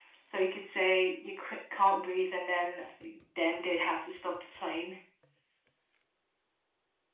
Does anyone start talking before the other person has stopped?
No

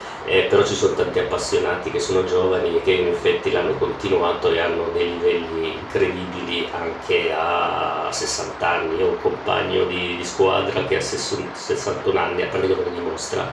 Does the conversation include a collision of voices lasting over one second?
No

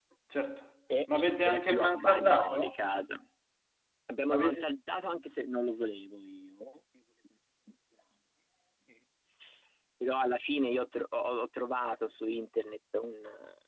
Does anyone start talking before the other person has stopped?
Yes, from 1.1 s

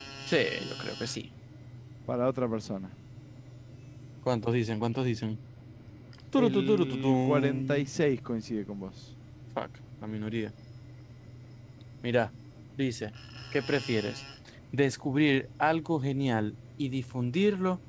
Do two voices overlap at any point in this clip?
Yes, from 6.4 s

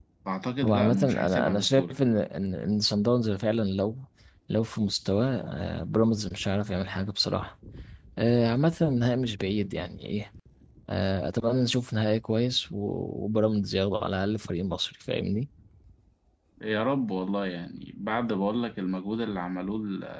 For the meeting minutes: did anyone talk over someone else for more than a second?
Yes, from 0.6 s

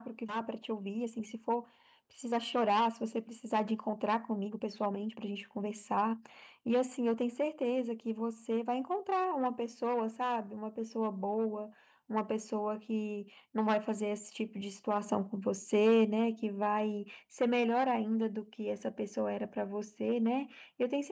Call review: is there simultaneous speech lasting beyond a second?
No

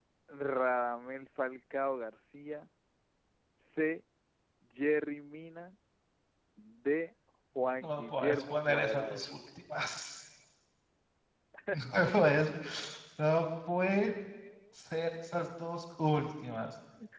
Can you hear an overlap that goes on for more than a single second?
Yes, from 7.8 s

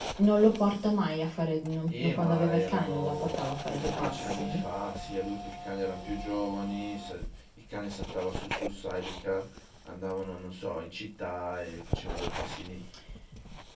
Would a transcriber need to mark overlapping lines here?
Yes, from 1.9 s

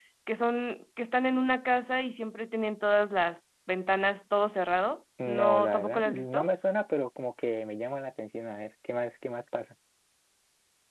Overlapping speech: Yes, from 5.2 s

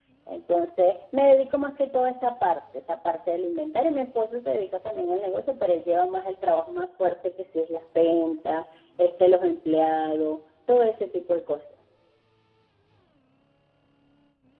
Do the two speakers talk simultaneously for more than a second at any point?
No

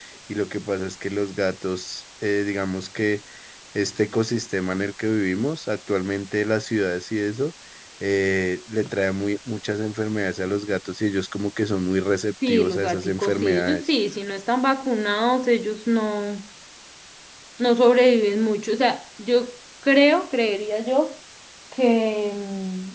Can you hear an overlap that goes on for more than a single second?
Yes, from 12.4 s

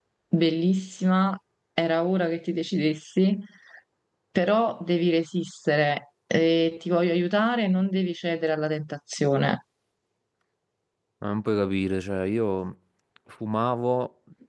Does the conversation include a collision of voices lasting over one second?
No

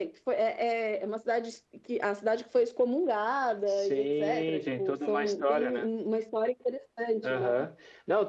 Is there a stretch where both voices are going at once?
Yes, from 3.7 s

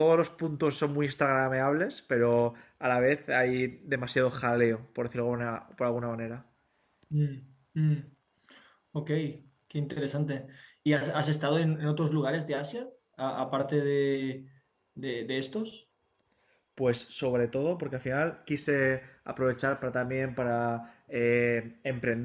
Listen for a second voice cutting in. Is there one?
No

